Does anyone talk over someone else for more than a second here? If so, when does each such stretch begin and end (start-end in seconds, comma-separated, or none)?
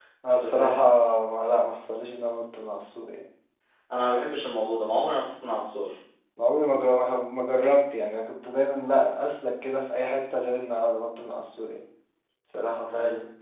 none